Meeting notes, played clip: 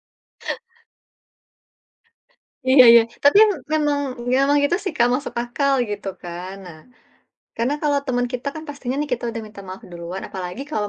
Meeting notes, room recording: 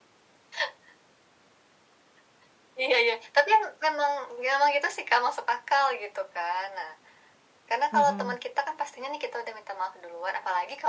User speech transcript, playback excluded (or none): mhm